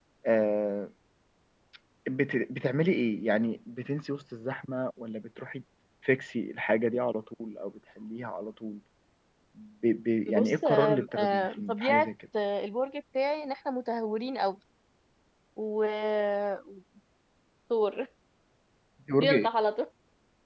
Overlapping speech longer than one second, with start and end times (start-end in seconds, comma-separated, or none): 10.3-12.1